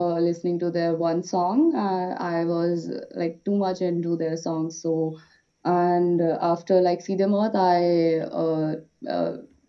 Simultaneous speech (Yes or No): No